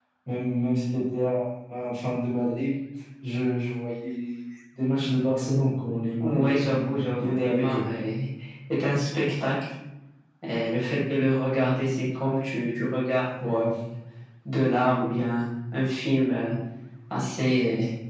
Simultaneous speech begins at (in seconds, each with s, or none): 6.2 s